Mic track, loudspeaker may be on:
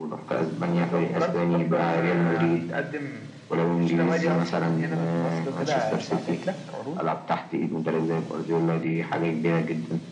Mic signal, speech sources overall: echo only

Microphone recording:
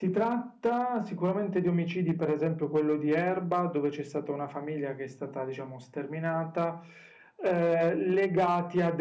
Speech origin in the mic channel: echo only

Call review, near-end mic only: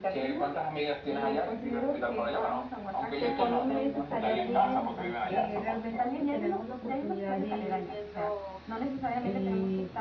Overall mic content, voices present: both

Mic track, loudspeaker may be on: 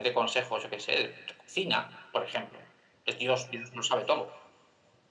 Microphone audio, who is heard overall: echo only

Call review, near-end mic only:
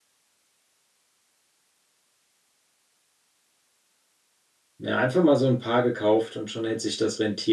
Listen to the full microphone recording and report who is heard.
user only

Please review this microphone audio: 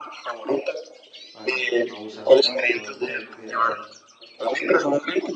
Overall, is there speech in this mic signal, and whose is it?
both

